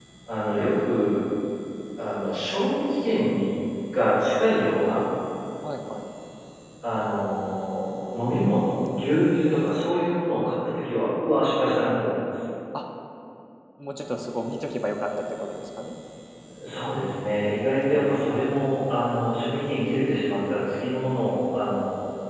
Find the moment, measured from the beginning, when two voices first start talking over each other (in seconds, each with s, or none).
none